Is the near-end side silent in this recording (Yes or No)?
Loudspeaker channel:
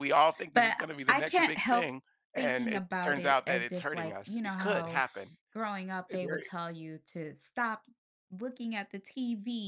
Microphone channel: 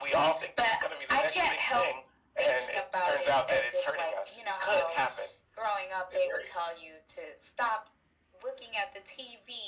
Yes